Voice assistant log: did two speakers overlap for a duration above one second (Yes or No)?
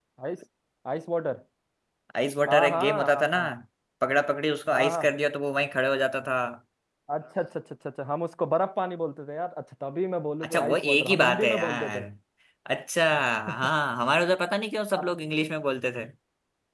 Yes